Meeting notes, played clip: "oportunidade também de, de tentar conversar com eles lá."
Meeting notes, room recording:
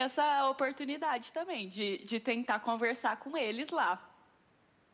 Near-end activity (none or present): none